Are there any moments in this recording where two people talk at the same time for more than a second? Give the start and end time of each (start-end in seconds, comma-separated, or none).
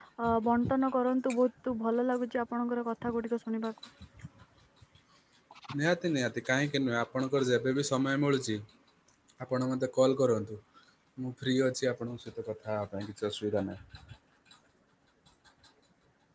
none